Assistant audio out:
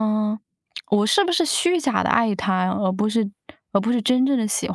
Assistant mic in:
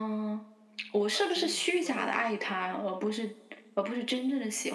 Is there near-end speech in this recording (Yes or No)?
Yes